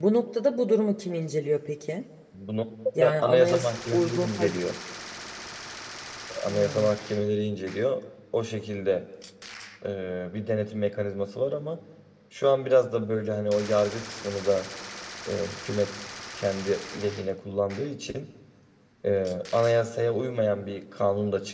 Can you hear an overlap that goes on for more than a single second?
Yes, from 3.0 s

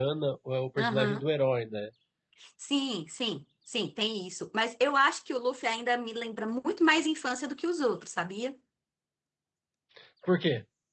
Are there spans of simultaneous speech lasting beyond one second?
No

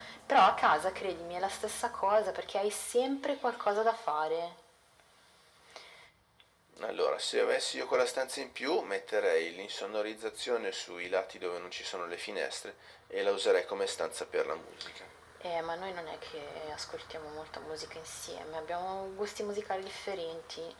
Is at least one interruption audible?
No

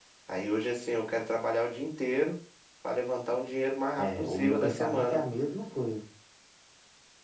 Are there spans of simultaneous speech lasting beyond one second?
Yes, from 4.0 s

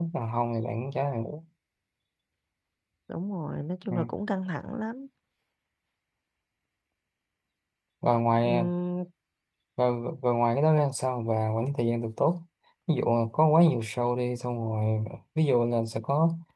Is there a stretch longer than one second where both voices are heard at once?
No

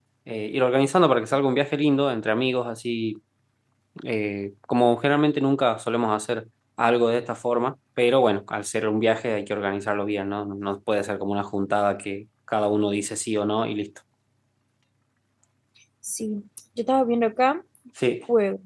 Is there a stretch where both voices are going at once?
No

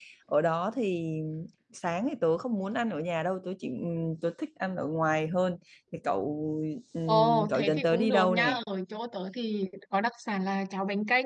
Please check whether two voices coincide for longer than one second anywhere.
Yes, from 7.1 s

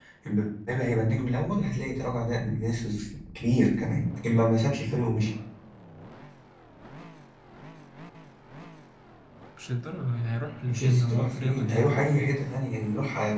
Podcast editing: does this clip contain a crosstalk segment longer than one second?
Yes, from 10.6 s

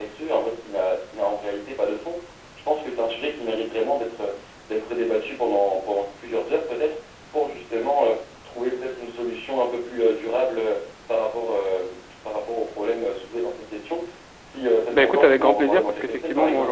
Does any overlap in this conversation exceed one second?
Yes, from 14.9 s

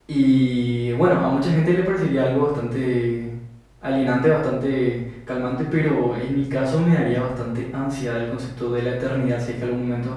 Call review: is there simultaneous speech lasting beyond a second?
No

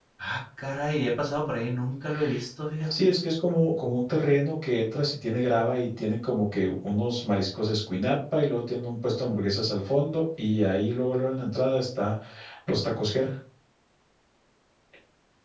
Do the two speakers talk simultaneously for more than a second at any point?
No

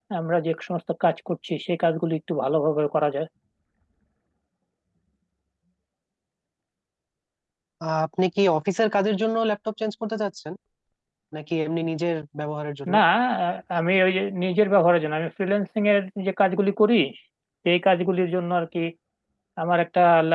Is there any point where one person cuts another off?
No

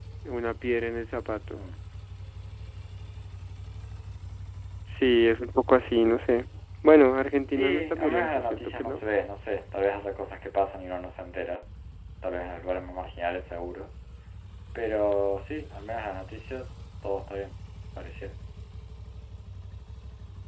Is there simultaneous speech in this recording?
Yes, from 7.5 s

